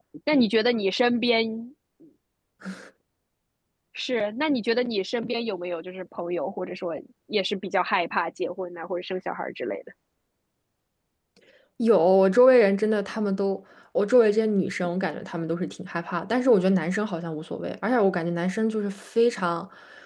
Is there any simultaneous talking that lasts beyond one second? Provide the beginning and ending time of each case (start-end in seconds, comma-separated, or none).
none